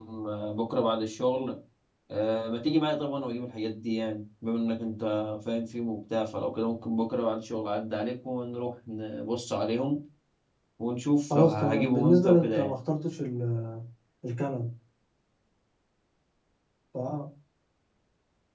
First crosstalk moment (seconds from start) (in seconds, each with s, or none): 11.3 s